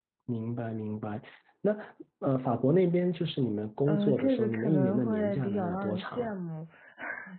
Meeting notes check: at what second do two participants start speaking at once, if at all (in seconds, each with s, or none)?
3.9 s